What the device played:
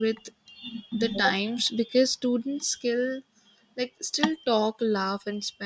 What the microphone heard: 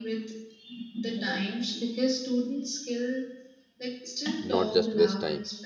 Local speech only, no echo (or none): not just waste time.